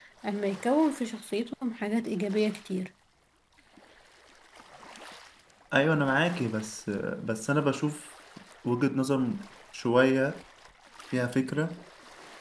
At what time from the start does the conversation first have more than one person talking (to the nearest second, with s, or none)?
none